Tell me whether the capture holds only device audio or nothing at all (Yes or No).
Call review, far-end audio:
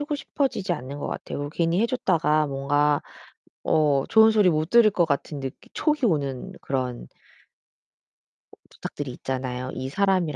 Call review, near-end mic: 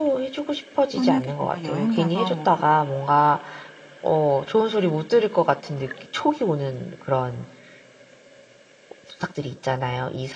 No